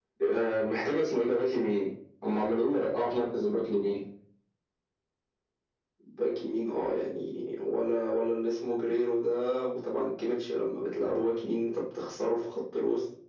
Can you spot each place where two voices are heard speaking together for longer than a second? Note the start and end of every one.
none

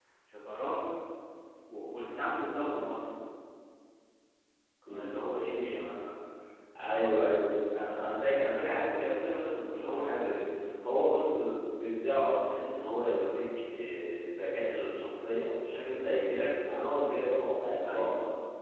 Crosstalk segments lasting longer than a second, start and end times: none

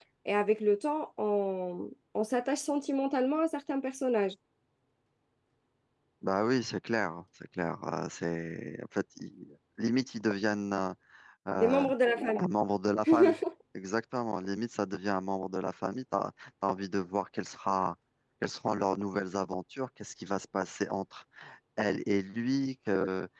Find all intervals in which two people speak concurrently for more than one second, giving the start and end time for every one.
none

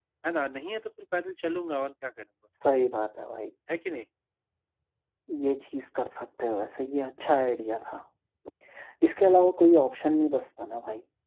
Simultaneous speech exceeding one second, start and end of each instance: none

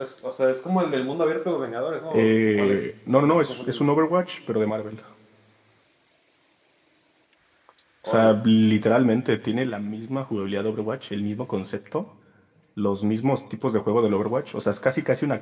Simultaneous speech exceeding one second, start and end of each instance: 2.1-3.9

